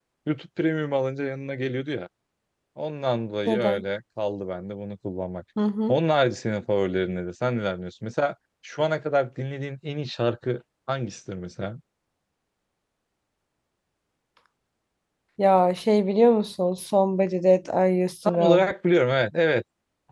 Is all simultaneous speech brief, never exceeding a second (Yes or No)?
Yes